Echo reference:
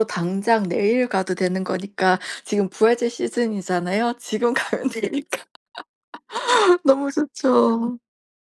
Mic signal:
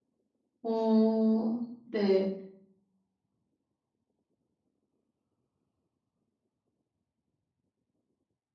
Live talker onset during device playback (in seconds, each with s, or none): 0.6 s